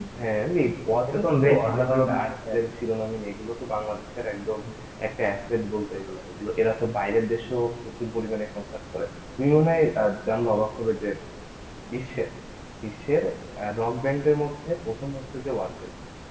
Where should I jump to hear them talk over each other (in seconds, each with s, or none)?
1.2 s